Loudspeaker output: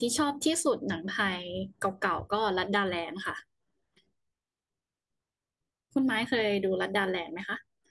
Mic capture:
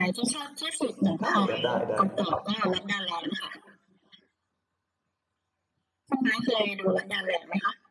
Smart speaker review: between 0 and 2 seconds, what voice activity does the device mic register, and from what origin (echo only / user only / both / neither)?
both